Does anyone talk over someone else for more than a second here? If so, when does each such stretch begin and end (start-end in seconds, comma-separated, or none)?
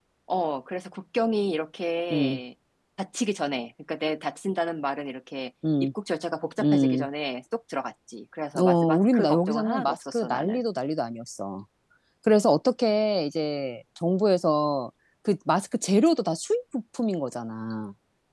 8.6-10.6